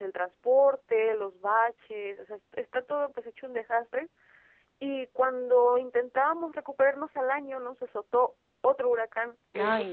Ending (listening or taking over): listening